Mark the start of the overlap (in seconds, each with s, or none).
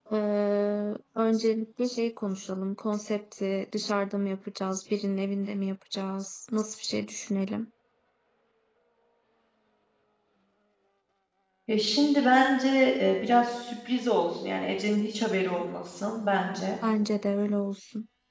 none